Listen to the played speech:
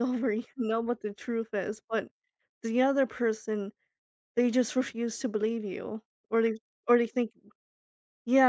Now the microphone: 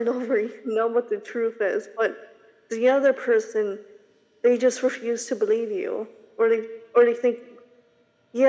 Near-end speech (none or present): none